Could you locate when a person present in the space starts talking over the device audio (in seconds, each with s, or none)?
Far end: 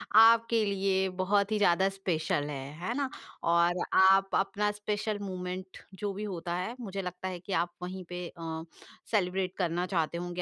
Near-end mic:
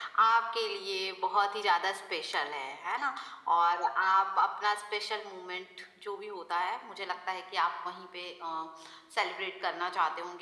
none